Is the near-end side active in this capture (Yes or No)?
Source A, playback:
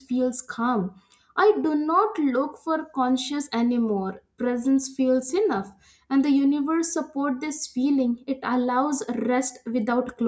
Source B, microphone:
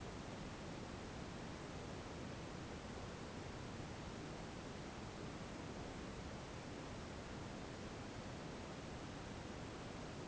No